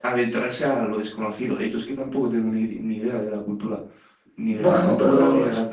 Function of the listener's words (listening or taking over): taking over